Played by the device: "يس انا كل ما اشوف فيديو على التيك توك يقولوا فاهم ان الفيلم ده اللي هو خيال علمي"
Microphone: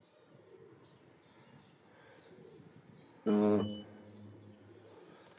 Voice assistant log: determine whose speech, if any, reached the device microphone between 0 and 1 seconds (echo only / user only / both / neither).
neither